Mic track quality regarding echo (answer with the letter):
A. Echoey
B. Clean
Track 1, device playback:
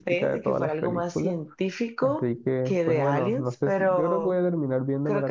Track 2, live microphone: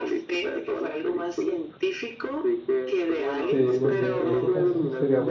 A